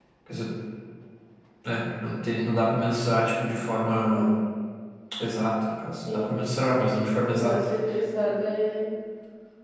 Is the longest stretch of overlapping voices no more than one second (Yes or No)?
Yes